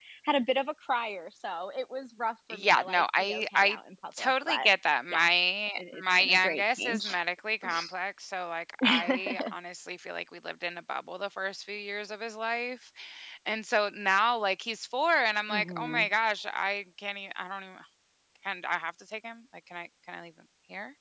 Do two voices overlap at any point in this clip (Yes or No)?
Yes